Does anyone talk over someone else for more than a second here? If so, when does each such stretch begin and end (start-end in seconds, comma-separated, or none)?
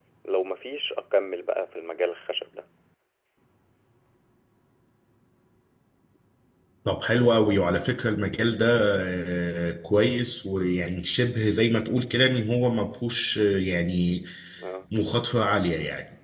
none